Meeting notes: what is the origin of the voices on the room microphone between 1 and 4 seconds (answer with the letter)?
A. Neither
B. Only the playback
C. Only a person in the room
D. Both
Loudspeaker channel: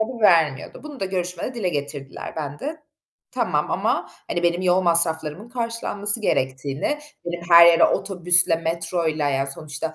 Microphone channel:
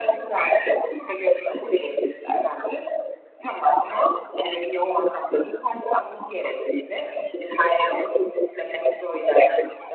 B